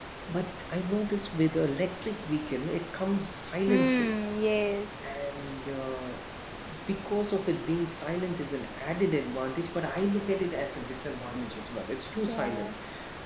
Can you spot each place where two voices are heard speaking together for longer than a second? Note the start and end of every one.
none

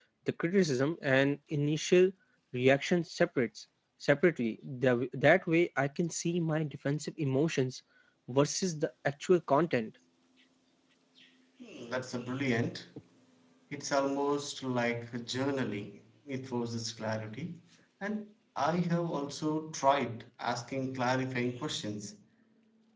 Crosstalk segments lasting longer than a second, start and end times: none

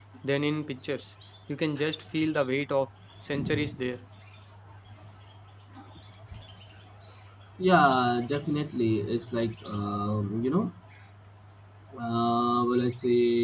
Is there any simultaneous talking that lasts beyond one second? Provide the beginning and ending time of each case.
none

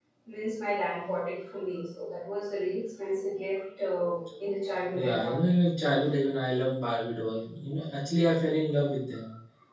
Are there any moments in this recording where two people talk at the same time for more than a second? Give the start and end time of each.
none

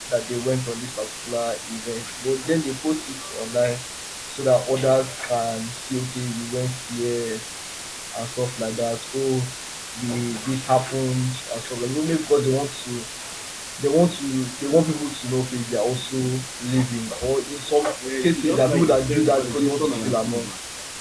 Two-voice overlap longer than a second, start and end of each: 18.2-20.5

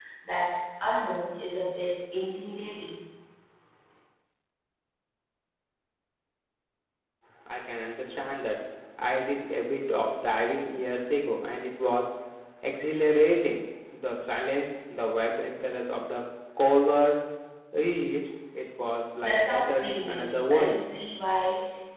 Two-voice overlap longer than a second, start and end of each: 19.2-20.8

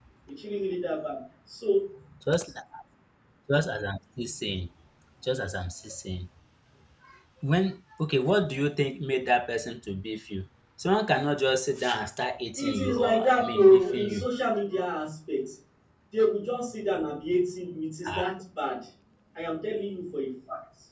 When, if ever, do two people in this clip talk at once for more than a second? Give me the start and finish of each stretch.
12.6-14.3

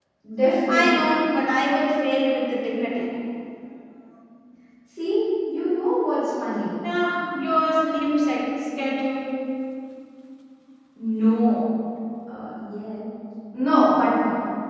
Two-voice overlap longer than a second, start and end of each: none

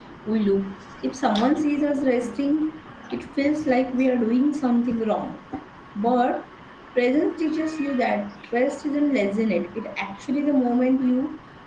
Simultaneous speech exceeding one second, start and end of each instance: none

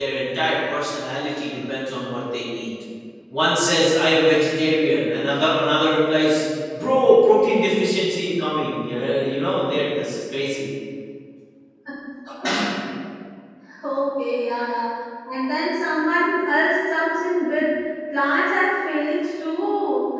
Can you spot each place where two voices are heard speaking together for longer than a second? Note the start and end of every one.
none

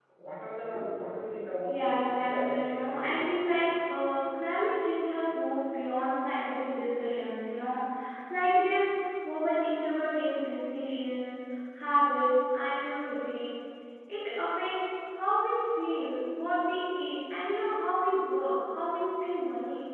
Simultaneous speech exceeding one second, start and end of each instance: 1.7-3.4

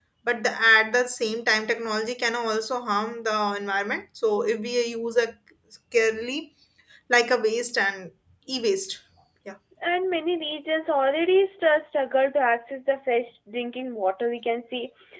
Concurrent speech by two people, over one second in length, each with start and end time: none

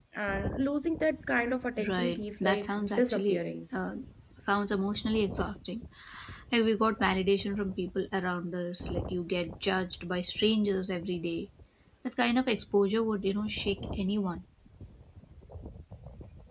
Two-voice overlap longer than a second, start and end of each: 1.9-3.4

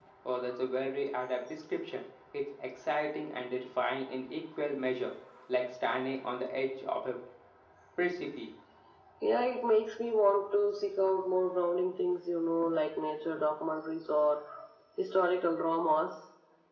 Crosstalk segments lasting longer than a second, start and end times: none

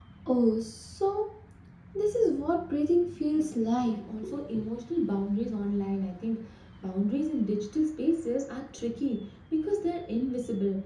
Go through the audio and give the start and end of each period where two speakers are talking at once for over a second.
none

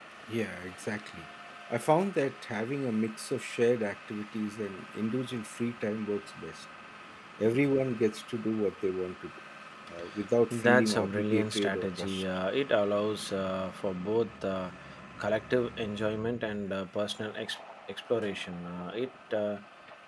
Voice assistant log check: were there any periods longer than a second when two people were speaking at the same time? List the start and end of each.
10.5-12.2

